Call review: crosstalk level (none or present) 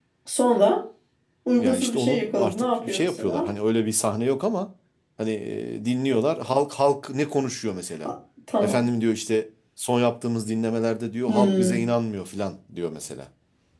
present